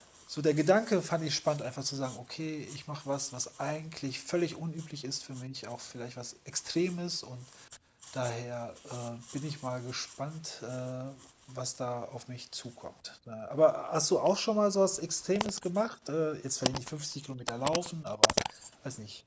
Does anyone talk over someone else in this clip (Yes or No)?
No